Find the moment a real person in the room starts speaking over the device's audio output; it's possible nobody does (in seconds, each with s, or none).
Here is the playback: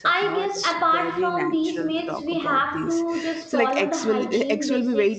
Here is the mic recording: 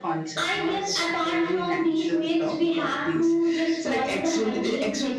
none